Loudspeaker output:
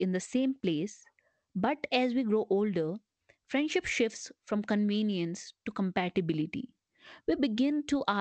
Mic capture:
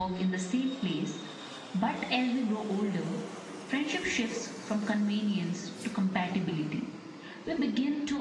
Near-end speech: none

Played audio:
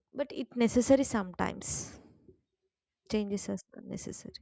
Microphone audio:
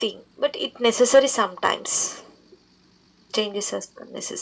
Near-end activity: none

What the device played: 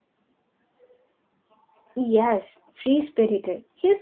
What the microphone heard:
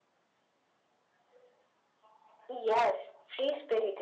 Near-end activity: none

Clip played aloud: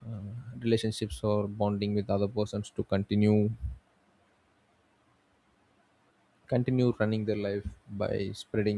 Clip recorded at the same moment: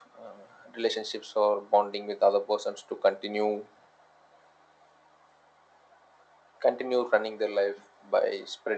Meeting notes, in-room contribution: none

